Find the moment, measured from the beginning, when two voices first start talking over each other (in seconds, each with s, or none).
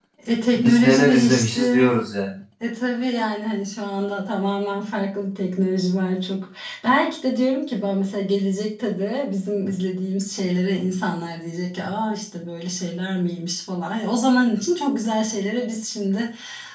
0.6 s